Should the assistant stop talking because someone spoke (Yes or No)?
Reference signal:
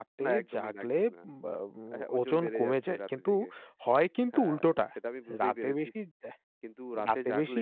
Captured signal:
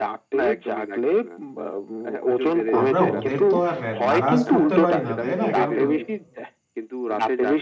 Yes